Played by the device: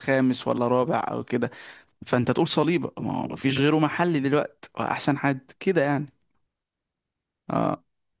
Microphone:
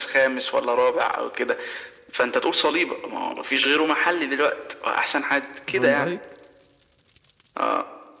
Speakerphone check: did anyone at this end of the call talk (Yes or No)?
Yes